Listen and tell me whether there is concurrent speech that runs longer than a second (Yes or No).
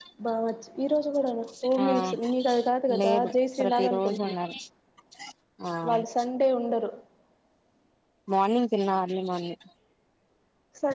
Yes